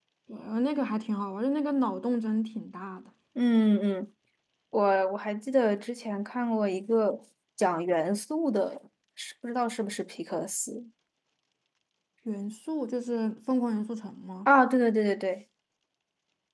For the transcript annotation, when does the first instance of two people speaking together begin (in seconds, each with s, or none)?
none